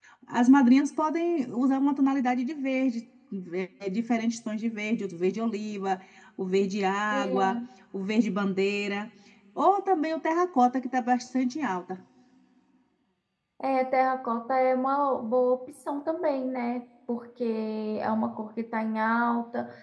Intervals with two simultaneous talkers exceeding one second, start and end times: none

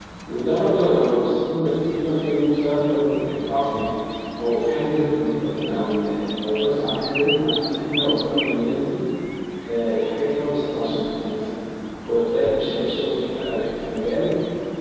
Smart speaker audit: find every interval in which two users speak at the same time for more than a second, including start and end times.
none

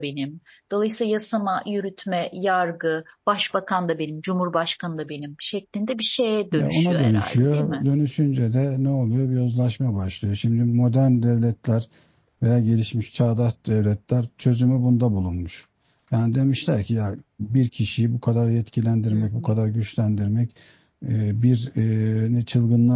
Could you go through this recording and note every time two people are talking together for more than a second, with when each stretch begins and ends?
6.5-7.8

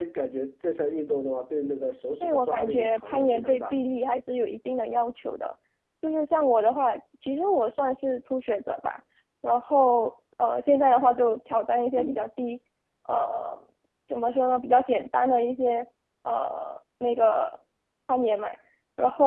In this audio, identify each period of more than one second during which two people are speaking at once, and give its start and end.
2.2-3.8

